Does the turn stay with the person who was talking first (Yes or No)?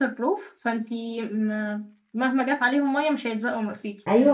No